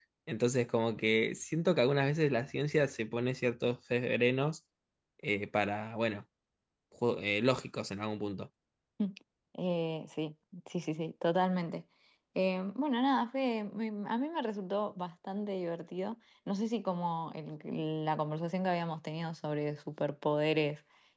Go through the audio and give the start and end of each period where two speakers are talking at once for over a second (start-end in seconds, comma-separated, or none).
none